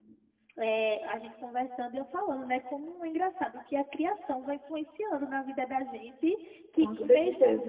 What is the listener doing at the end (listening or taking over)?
listening